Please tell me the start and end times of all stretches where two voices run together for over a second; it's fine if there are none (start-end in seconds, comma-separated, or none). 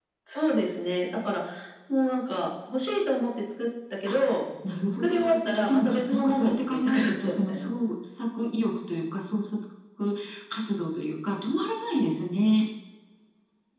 4.9-7.7